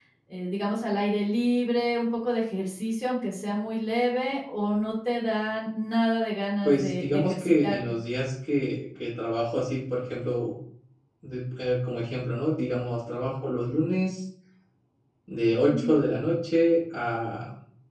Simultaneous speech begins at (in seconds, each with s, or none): 6.6 s